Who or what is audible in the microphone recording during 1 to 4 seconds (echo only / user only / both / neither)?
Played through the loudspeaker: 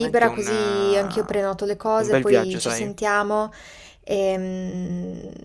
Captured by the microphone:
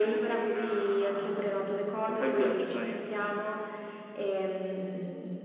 echo only